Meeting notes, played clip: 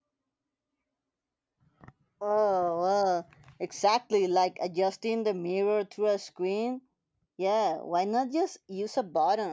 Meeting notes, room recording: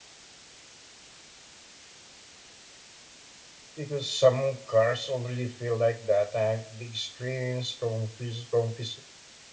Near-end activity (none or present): present